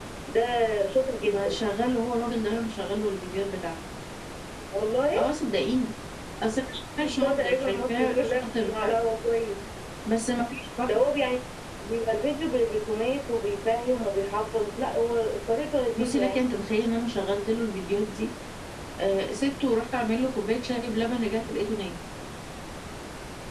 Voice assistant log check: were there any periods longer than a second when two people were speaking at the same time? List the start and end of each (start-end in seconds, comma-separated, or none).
7.2-9.0